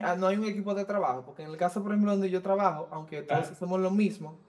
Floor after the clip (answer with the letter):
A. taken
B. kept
B